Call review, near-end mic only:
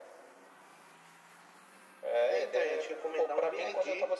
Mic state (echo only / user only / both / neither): echo only